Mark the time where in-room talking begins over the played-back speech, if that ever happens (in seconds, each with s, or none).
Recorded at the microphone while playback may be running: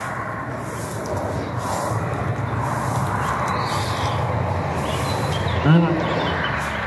5.6 s